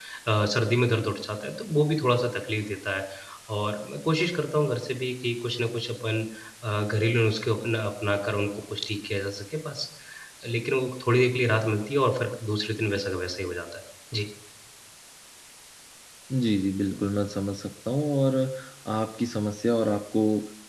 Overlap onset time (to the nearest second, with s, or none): none